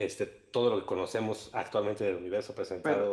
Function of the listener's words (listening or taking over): listening